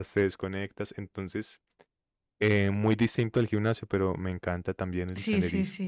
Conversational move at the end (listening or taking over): taking over